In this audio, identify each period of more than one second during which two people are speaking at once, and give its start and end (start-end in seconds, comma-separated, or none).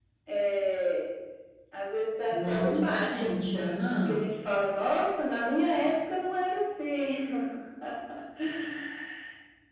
2.3-4.2